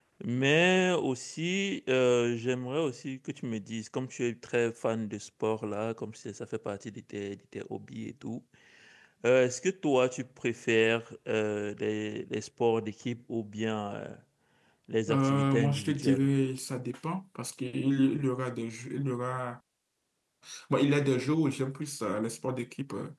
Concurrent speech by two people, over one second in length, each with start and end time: 15.1-16.3

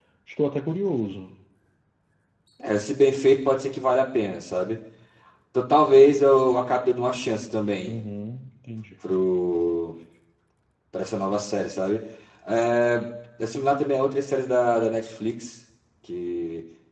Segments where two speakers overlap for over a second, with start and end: none

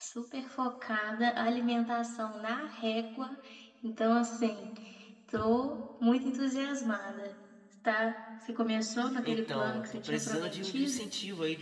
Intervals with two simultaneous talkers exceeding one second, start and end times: 9.2-11.0

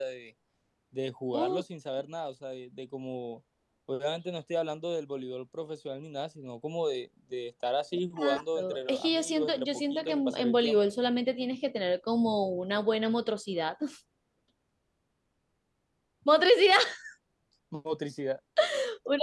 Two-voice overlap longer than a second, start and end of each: 8.2-10.8

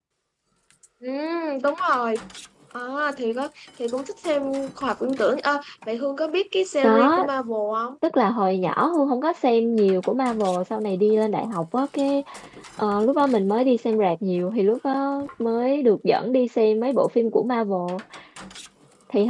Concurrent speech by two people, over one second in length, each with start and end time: none

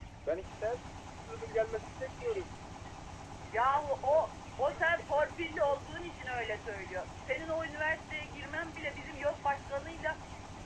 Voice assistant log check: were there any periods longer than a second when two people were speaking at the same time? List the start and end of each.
none

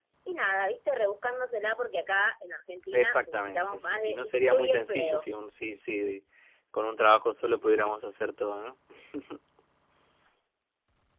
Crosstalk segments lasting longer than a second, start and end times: 2.9-5.2

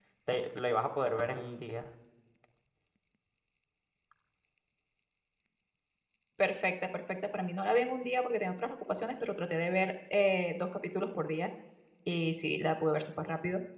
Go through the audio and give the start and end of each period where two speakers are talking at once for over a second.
none

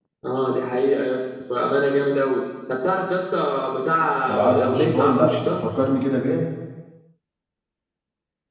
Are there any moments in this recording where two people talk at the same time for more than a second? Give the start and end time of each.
4.3-5.7

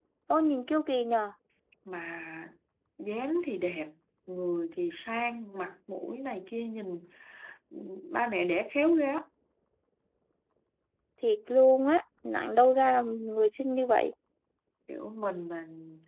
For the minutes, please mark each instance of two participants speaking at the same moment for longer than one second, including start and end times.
none

